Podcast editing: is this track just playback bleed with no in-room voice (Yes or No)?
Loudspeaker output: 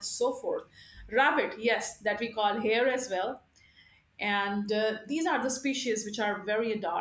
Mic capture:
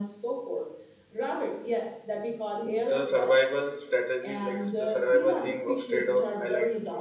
No